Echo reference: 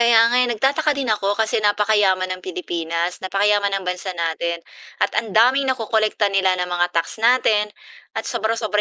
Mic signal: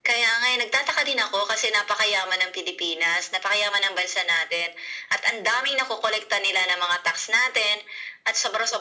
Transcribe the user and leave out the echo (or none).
none